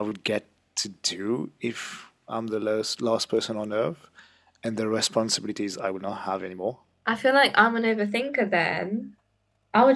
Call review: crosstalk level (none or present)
none